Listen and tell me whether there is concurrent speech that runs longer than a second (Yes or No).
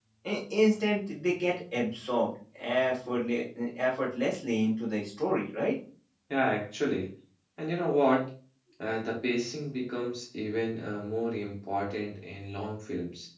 No